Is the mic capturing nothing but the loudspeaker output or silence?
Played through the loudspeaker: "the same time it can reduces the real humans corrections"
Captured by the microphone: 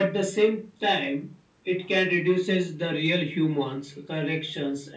Yes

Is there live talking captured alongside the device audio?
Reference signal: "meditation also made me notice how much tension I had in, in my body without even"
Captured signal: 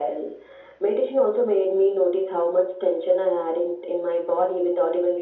No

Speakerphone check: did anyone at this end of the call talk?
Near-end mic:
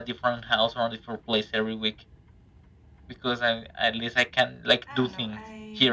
Yes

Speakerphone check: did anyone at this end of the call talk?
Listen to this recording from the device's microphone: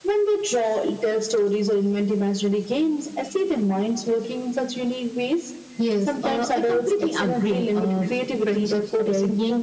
No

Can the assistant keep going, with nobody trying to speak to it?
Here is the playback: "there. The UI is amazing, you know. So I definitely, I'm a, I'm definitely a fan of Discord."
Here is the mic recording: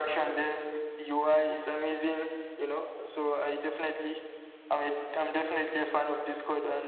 Yes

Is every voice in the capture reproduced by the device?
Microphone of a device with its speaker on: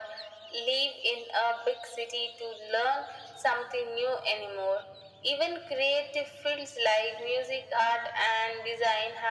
Yes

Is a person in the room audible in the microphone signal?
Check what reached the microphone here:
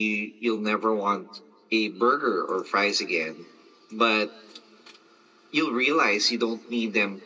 No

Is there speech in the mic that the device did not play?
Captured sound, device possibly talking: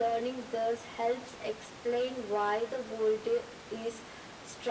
No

